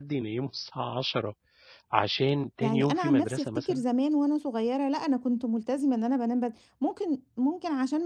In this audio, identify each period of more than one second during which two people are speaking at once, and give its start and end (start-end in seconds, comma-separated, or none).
2.6-3.8